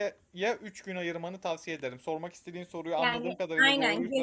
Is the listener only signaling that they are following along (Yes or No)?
No